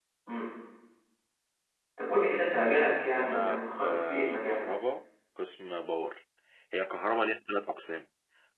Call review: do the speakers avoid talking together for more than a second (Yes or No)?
No